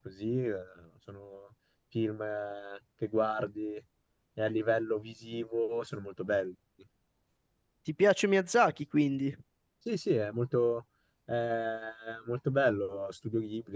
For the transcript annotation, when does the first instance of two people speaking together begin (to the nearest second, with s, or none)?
none